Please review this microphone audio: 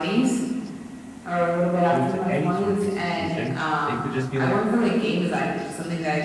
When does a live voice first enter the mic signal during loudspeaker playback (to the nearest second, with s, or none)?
2 s